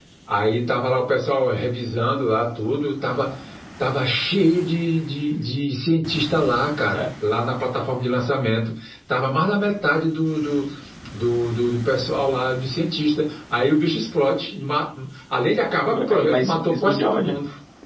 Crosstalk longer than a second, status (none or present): present